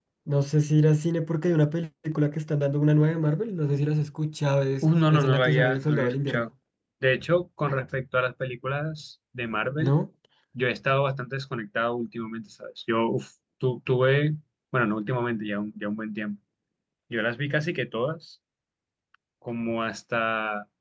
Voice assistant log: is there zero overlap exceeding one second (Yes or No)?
No